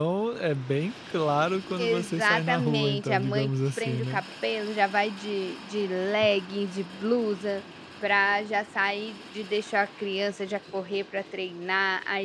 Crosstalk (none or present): present